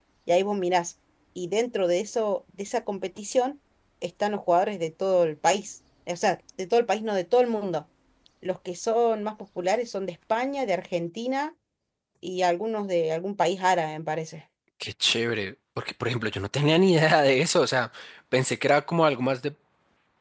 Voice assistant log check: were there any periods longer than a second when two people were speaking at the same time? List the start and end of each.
none

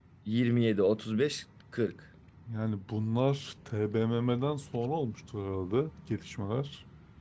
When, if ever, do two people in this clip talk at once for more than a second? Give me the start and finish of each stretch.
none

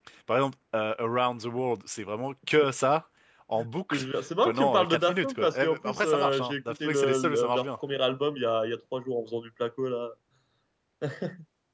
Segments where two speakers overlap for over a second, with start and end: 3.5-7.7

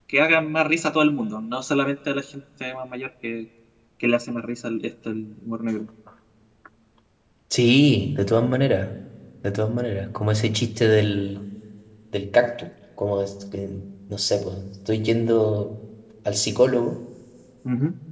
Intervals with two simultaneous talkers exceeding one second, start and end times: none

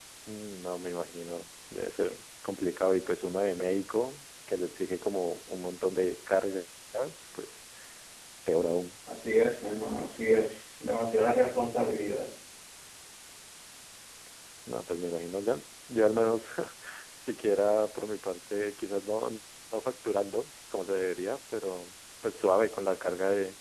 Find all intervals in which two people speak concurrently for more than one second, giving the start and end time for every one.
none

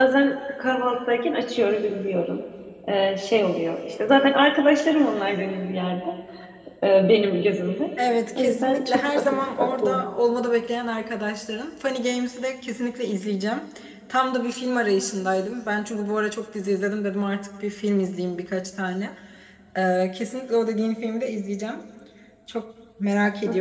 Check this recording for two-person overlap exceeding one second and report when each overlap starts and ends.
8.4-10.1

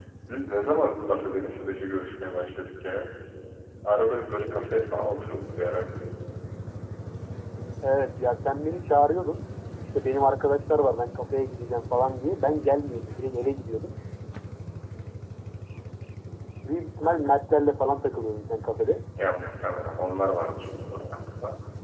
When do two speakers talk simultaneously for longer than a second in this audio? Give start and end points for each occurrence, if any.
none

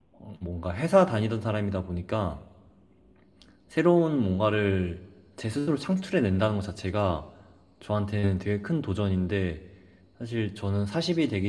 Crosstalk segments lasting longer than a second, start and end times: none

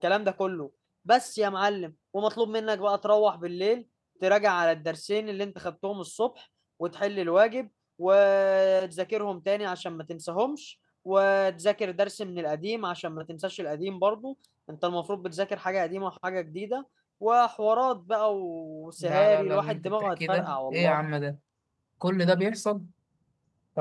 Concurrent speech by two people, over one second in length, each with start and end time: 19.0-21.0

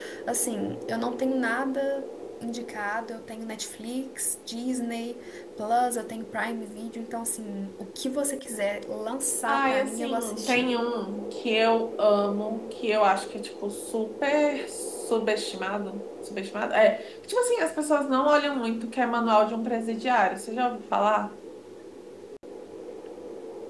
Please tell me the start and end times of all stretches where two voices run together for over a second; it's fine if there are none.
9.5-10.7

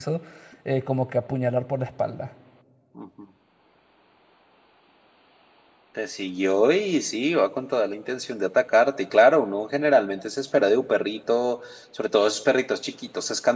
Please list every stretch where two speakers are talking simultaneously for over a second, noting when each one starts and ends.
none

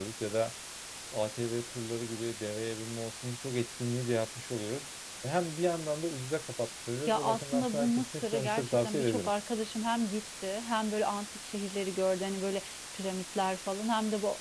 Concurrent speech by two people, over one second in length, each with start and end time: 7.1-9.3

